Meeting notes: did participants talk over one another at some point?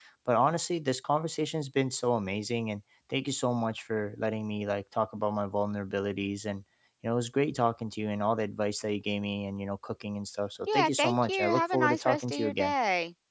Yes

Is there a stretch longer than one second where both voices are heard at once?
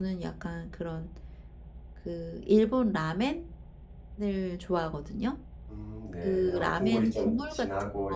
Yes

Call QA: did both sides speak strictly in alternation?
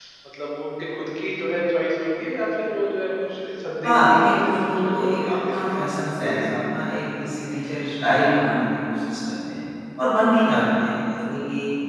No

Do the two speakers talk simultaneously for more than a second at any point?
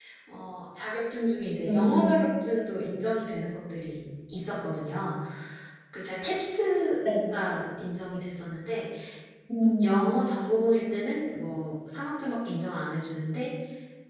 No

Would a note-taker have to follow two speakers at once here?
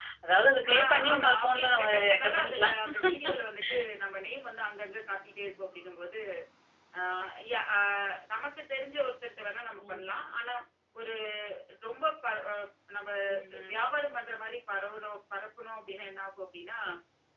Yes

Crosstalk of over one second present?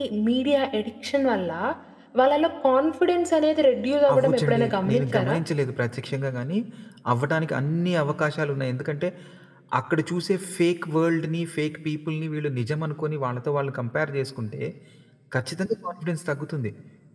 Yes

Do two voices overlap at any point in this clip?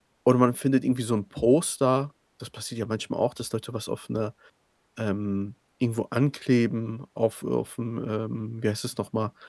No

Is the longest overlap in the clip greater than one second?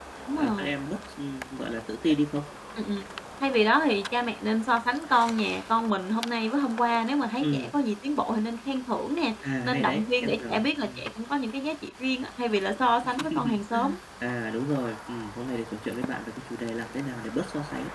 Yes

